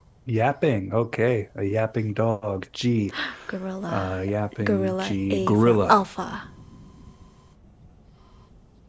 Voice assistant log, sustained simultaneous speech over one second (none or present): present